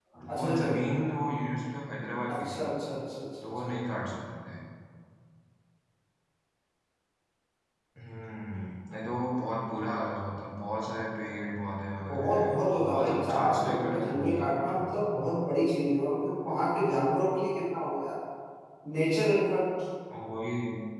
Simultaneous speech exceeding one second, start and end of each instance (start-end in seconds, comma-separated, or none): 12.1-14.8